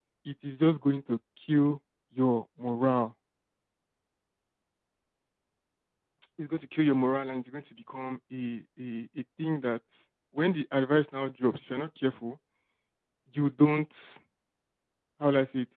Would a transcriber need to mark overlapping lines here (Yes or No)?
No